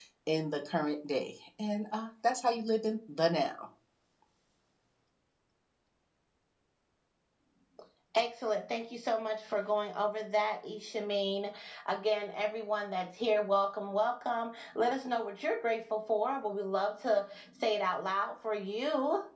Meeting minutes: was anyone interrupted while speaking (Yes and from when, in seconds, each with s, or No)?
No